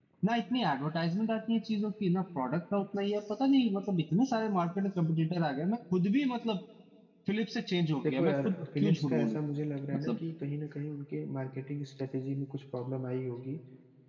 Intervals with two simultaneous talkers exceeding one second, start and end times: 8.0-9.4

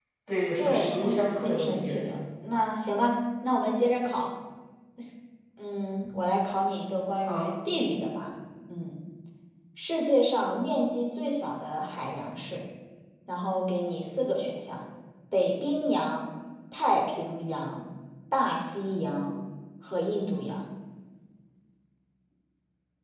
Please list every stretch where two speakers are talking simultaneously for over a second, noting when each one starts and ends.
0.6-2.0

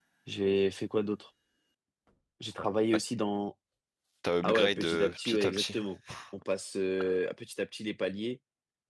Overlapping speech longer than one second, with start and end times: 4.4-5.8

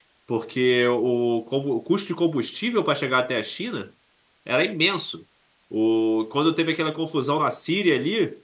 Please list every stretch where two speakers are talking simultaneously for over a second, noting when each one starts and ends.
none

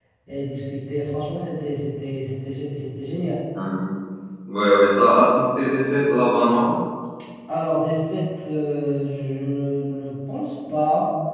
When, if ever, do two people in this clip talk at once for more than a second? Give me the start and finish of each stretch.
none

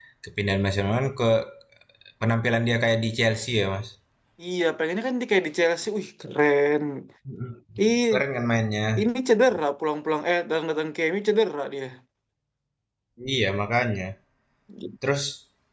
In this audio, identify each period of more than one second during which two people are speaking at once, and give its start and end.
none

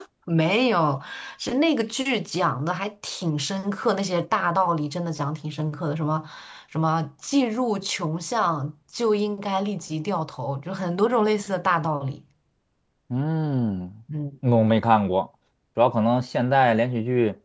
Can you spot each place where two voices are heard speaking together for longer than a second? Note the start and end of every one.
none

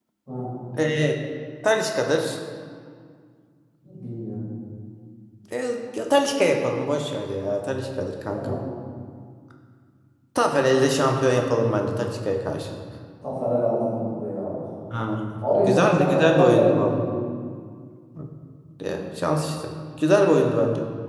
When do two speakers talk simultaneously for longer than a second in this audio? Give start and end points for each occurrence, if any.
15.7-17.0

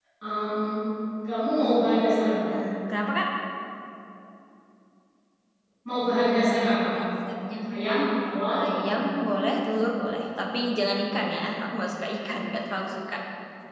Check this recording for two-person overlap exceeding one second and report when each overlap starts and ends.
none

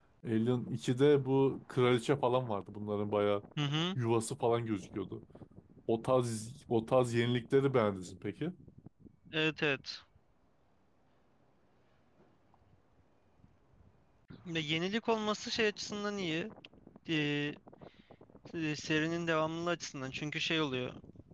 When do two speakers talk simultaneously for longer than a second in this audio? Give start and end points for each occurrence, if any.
none

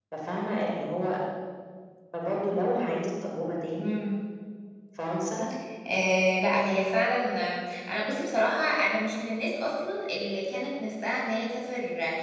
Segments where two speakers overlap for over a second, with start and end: none

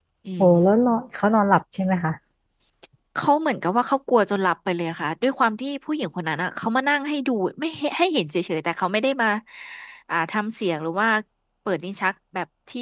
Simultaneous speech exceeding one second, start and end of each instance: none

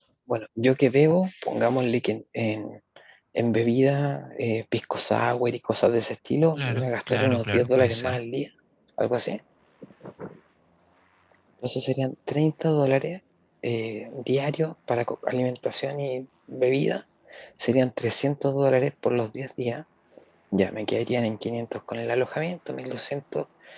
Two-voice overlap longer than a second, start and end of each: 6.6-8.2

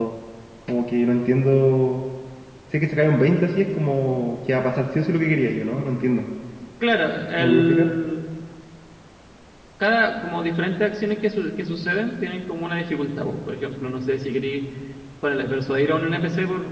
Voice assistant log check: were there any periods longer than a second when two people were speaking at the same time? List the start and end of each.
none

